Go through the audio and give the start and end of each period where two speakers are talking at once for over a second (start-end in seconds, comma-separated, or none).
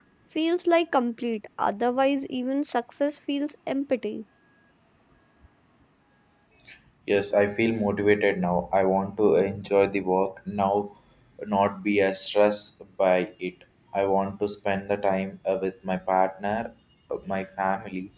none